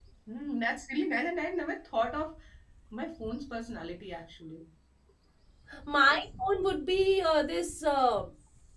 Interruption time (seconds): none

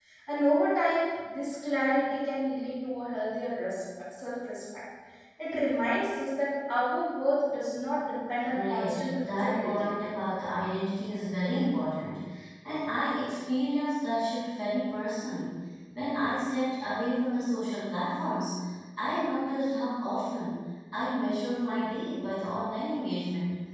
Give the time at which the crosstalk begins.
8.4 s

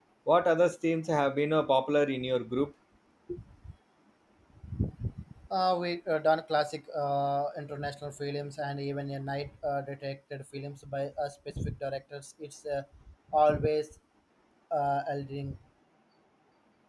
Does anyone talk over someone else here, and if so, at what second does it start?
none

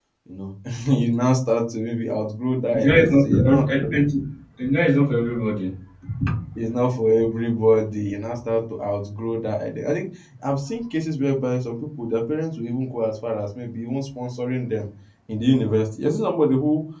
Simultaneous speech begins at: 2.7 s

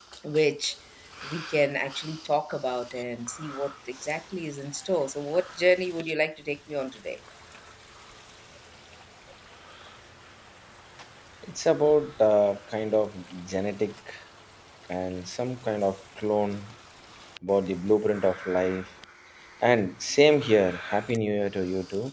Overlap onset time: none

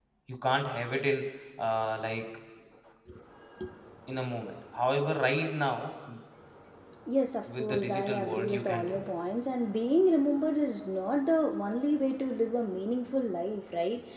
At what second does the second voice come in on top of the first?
7.6 s

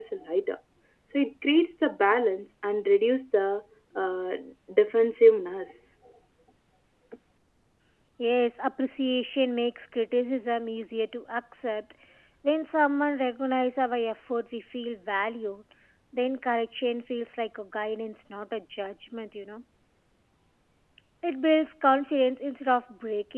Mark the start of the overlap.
none

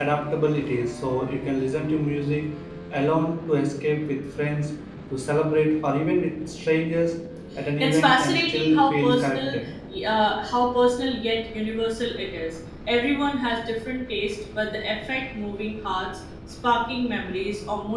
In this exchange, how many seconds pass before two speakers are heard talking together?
7.8 s

